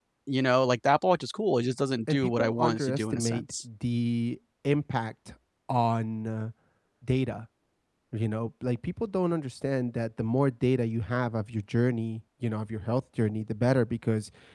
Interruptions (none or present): present